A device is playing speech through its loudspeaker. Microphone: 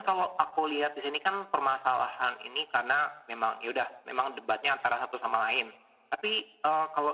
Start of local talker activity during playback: none

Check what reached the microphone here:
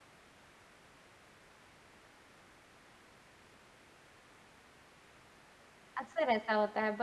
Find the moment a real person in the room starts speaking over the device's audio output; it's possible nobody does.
6.0 s

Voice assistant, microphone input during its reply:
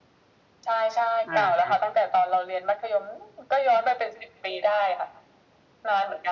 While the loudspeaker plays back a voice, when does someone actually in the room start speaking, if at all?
1.2 s

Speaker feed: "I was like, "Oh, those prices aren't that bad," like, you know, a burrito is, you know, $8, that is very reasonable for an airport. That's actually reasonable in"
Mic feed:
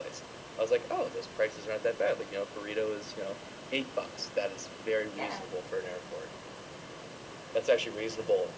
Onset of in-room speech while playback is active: 5.1 s

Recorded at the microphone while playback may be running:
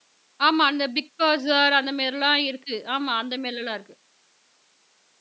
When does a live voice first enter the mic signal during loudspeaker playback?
0.5 s

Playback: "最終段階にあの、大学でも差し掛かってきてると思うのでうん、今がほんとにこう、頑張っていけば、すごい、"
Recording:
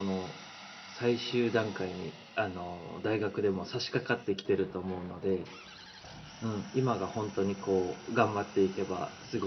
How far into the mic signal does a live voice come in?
none

